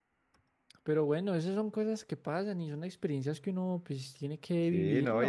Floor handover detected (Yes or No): Yes